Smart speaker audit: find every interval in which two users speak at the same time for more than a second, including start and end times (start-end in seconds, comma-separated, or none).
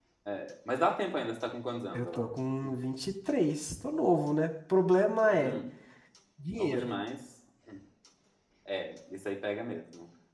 none